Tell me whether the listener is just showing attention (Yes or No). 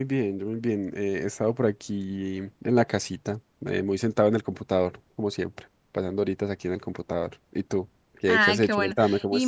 No